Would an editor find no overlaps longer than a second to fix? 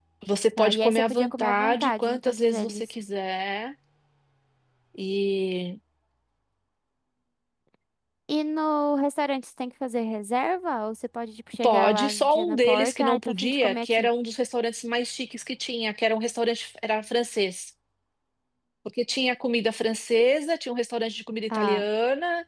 No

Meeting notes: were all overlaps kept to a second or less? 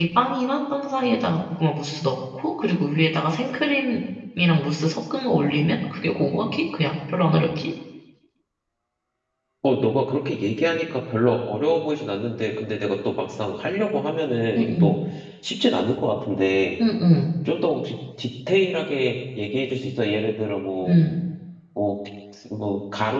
Yes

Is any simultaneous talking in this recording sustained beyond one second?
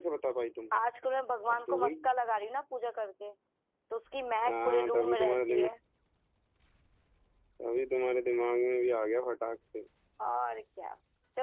Yes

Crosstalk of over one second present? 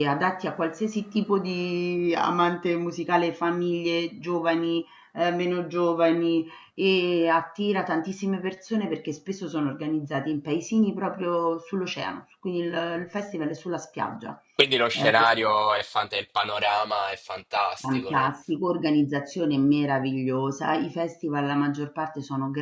No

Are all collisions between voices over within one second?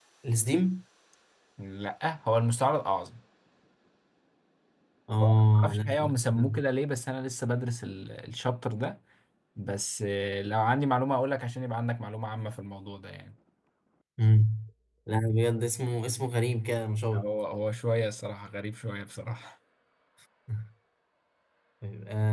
No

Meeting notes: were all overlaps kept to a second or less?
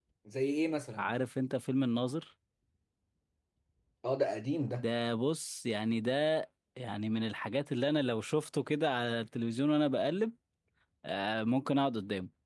Yes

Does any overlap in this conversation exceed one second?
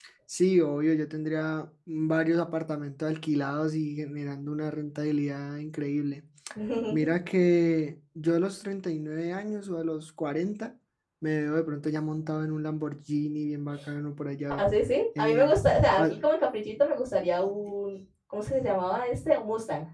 No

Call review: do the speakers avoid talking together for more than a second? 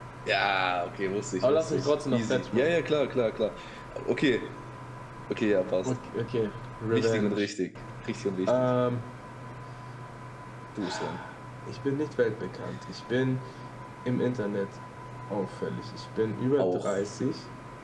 No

